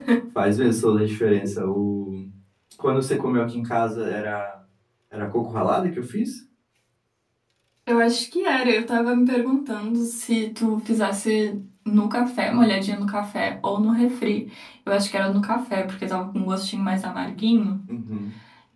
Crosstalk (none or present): none